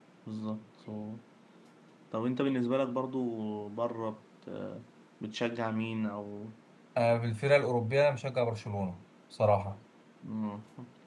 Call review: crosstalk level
none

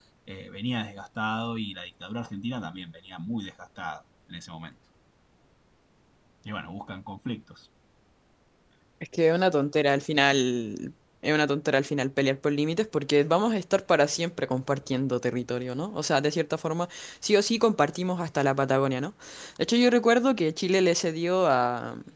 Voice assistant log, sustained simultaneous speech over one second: none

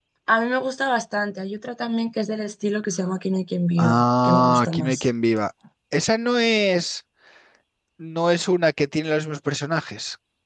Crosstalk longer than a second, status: present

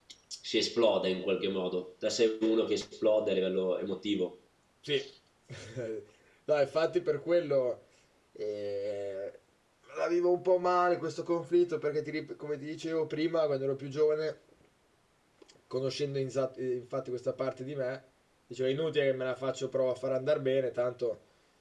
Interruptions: none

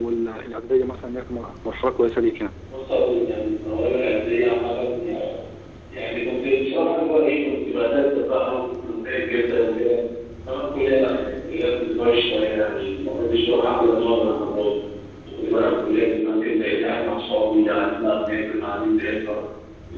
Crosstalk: none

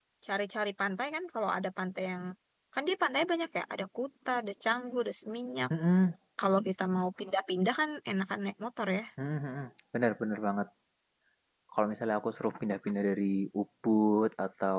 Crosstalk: none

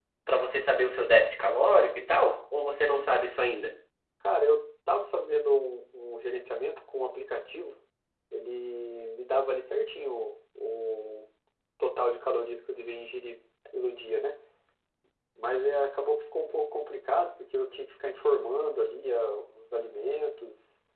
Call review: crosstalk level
none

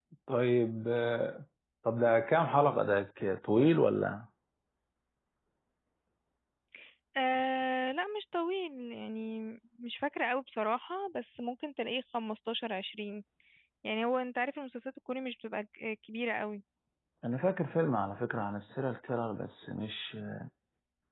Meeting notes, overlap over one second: none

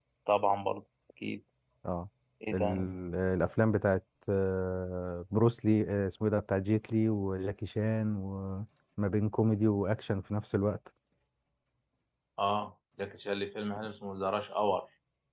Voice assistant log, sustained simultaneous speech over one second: none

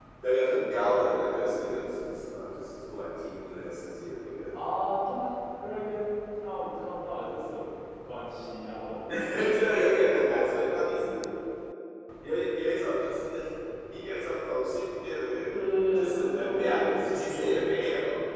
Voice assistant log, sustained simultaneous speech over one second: present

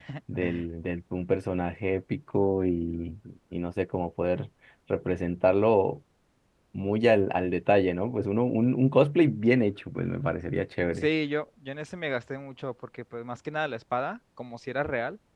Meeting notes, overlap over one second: none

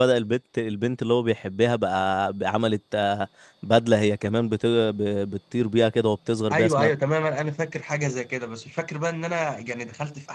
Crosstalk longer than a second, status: none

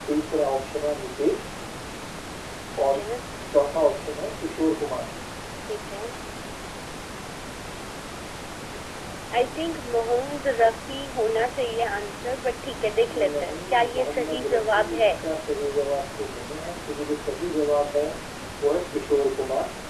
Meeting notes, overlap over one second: present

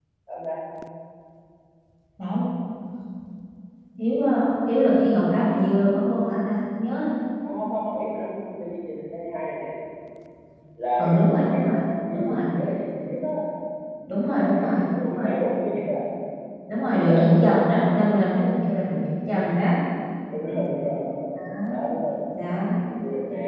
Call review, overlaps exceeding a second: present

